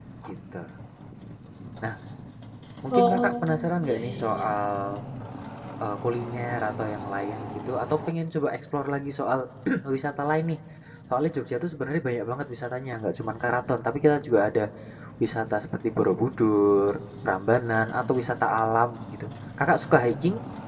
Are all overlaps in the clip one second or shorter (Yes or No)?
No